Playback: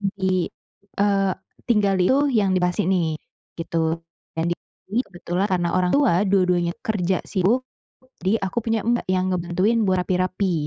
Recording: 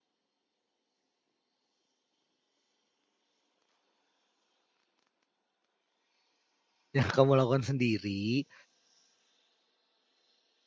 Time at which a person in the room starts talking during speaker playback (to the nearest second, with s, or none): 7 s